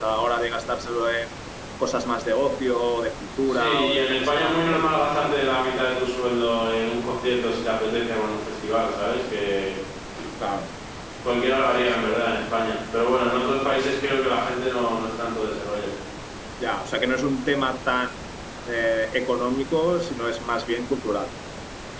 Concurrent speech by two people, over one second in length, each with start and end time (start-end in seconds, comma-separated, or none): 3.5-4.9